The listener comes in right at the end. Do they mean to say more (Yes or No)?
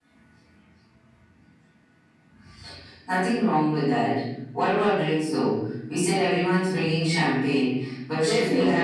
Yes